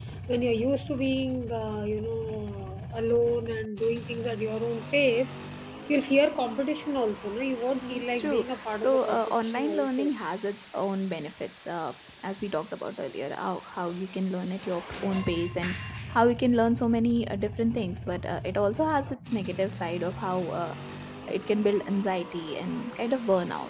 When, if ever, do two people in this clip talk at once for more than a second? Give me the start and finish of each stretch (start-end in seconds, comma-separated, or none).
7.9-10.1